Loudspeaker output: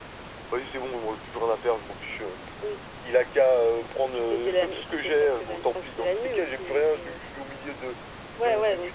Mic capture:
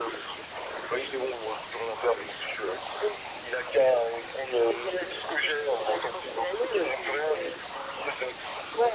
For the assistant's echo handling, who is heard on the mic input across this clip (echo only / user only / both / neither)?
echo only